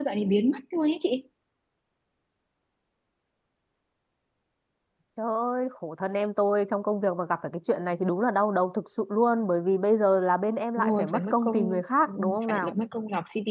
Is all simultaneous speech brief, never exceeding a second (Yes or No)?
No